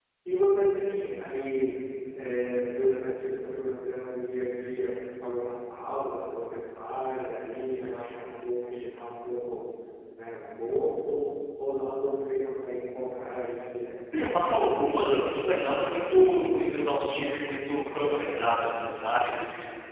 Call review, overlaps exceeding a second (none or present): none